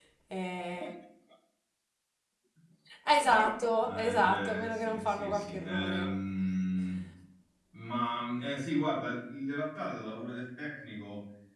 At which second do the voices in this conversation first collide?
3.8 s

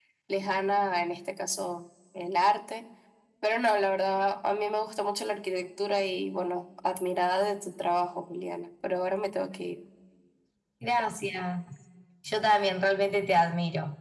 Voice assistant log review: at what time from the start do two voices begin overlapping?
none

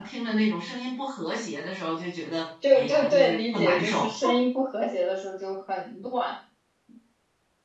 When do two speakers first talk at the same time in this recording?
2.6 s

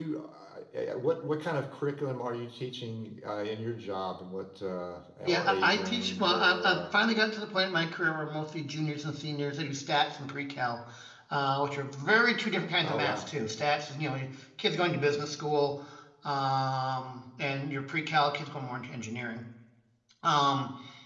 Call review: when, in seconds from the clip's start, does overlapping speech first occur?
5.2 s

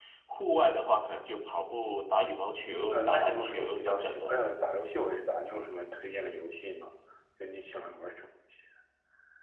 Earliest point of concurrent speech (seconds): 2.9 s

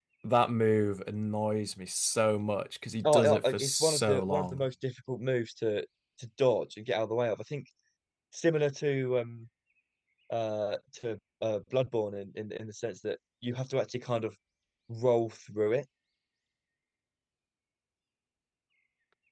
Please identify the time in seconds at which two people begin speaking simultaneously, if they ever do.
3.0 s

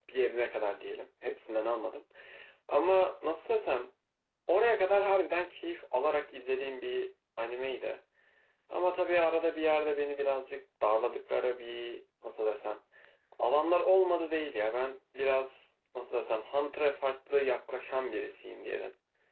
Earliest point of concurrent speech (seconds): none

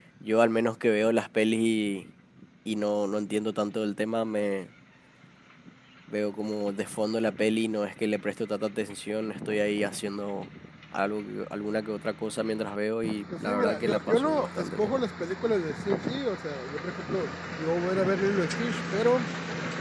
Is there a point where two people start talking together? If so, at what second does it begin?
13.3 s

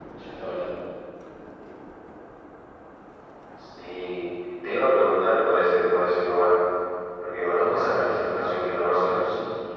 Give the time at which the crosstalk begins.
7.5 s

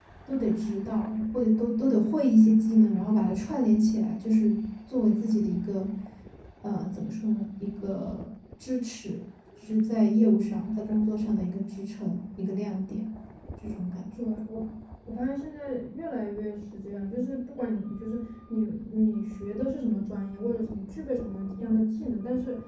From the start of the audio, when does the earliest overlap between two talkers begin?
none

